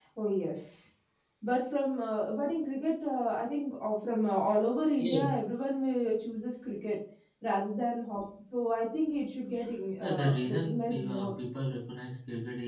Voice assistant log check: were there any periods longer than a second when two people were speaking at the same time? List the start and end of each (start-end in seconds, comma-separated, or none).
10.0-11.3